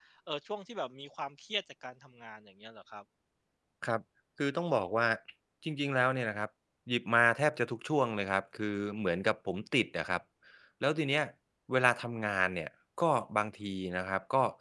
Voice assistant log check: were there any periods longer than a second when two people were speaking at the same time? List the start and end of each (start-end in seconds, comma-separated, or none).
none